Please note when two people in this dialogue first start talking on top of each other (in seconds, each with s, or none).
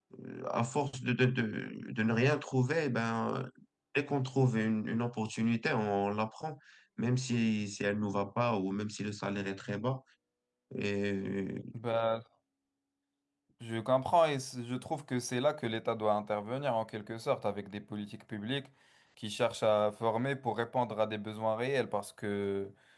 none